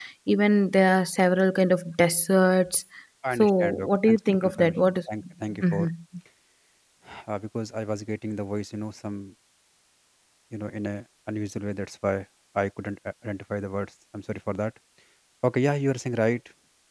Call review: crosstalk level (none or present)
present